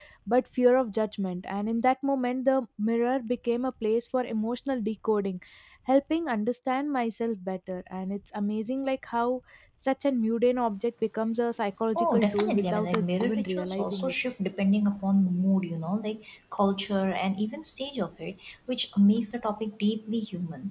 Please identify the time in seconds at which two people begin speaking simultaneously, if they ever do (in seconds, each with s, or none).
11.9 s